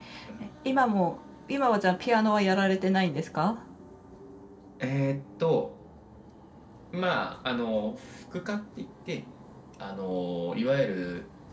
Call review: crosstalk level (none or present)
none